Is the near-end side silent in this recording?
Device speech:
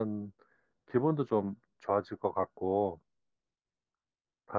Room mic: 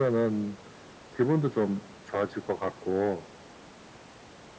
Yes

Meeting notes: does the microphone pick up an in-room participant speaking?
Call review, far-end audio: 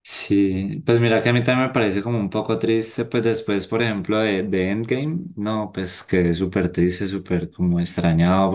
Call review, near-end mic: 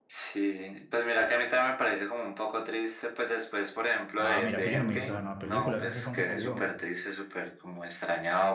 Yes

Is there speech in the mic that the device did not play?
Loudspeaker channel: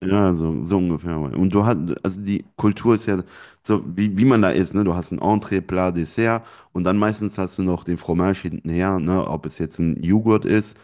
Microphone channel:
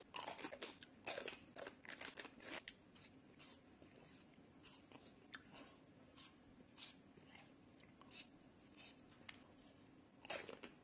No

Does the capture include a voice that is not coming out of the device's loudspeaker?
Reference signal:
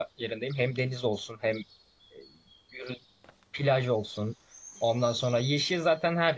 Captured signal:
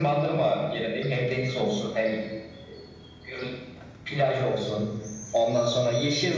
No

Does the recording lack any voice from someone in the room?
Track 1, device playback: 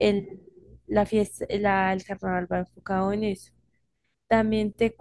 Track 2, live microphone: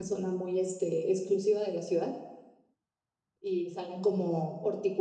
No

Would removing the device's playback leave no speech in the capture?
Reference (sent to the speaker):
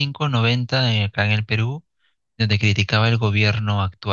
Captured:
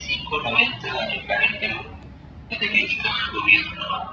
Yes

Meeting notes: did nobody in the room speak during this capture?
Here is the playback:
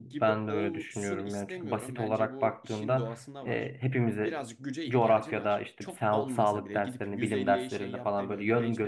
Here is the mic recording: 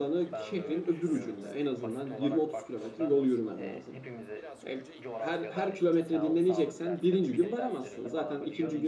No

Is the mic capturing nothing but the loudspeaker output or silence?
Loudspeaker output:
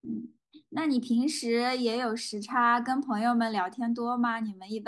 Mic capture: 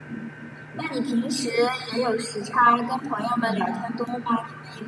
No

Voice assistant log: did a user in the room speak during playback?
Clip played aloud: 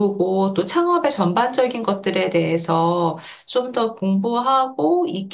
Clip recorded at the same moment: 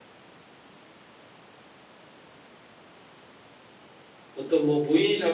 Yes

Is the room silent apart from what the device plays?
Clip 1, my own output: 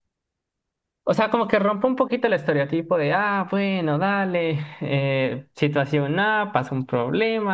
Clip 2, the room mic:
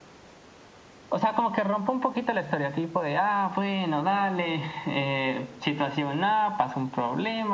Yes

